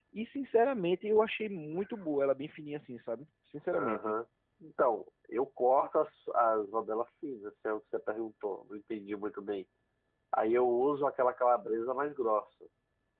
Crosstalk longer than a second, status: none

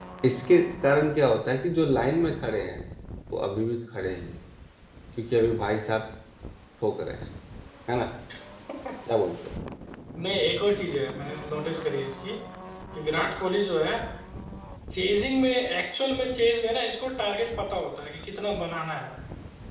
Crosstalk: none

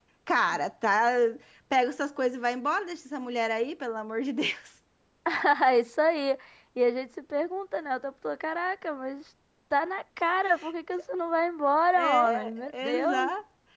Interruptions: present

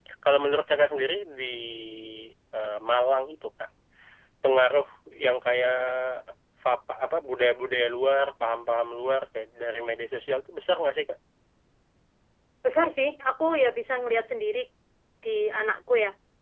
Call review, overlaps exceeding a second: none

